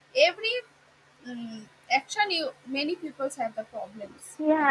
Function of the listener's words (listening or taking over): taking over